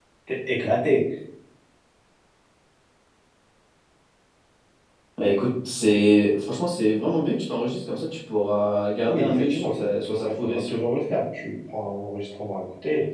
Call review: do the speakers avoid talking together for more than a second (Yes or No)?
No